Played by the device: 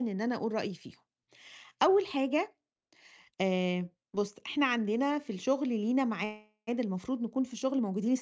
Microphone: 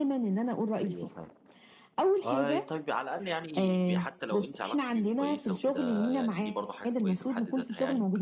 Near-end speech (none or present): present